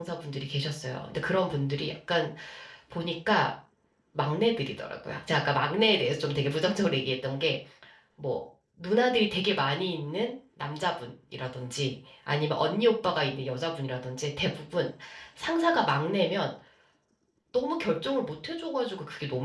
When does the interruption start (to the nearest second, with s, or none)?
none